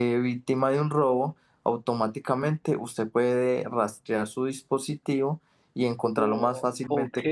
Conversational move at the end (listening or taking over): taking over